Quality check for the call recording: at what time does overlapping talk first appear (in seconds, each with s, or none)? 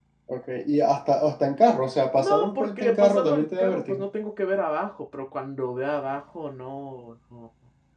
2.2 s